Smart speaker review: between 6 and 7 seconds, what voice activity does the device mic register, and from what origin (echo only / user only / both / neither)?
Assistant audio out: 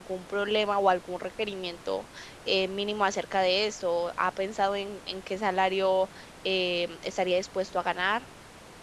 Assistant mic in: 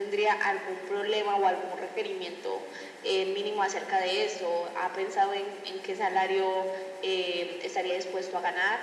echo only